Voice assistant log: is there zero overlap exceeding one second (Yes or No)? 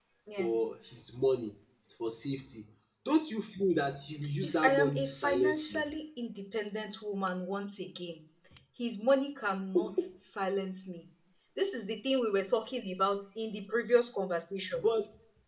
No